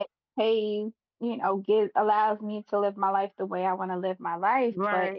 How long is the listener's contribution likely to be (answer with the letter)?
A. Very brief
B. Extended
A